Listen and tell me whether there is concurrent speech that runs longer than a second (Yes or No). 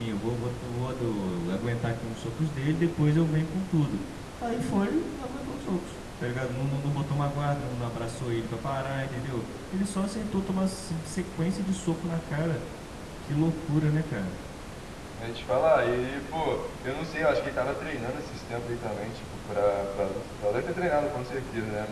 No